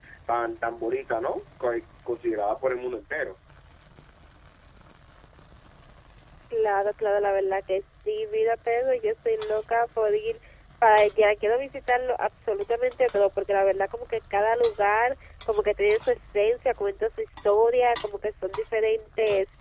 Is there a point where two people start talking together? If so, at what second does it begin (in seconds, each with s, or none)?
none